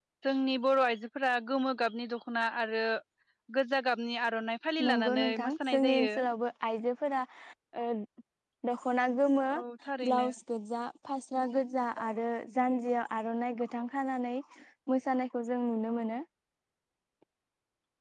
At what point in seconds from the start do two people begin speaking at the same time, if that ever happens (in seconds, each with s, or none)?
4.8 s